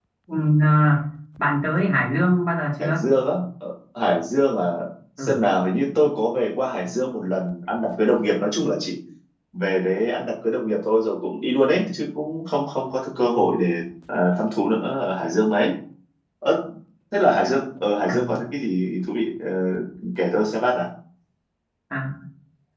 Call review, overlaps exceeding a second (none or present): none